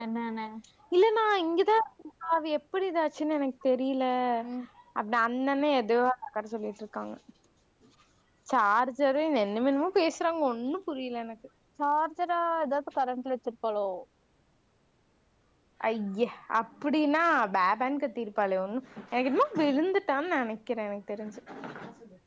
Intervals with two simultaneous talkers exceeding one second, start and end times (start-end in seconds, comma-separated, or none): none